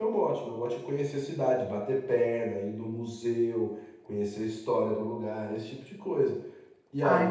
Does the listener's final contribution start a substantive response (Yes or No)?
Yes